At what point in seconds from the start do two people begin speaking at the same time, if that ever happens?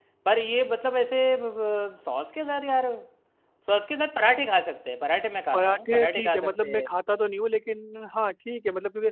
5.5 s

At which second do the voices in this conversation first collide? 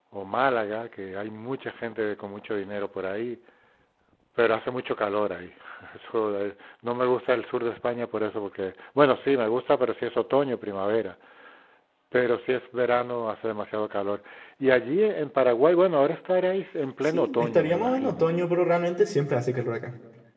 17.1 s

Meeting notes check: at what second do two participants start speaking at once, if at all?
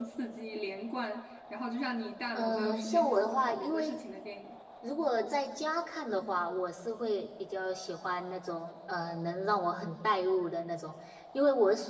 2.3 s

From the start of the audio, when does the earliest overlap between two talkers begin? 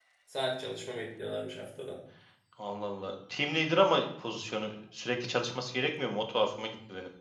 none

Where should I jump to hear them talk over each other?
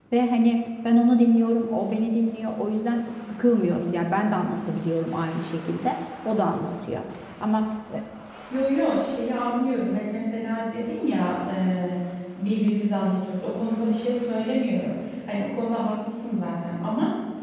none

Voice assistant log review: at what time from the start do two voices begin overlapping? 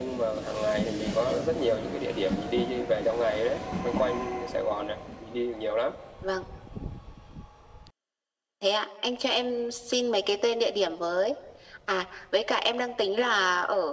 none

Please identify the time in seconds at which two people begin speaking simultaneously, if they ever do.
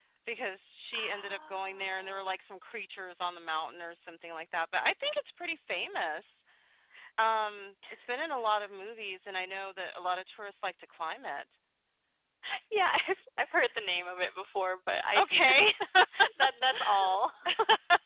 1.0 s

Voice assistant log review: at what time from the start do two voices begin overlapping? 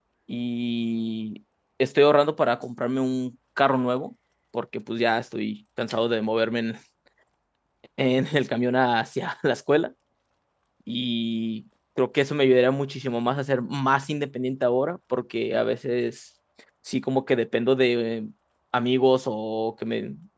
none

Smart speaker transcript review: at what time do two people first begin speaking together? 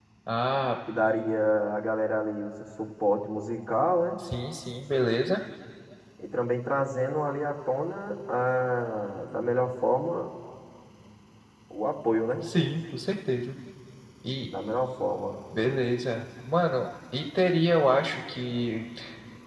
none

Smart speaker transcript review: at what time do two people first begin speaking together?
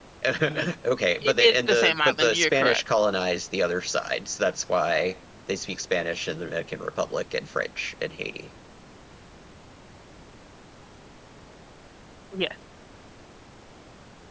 1.2 s

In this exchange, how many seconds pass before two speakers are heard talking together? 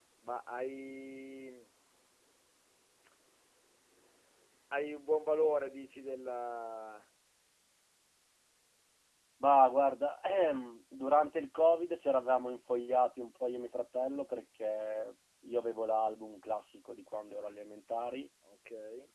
none

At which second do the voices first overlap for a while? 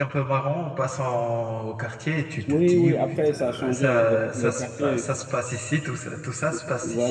2.5 s

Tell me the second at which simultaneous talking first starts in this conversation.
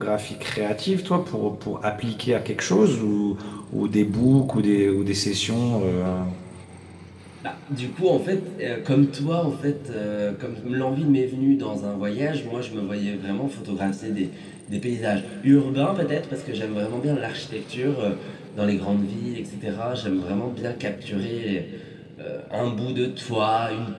none

